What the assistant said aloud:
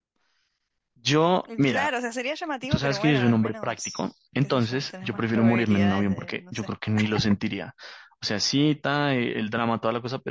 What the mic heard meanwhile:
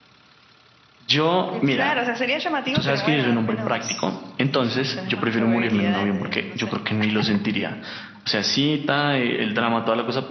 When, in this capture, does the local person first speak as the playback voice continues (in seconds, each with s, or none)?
none